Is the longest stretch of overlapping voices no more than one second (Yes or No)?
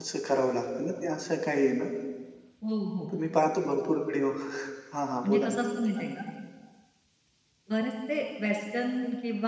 Yes